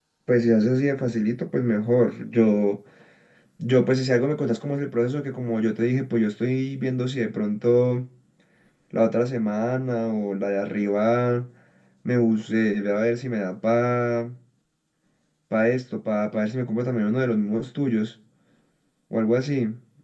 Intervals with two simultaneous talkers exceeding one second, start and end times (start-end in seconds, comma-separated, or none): none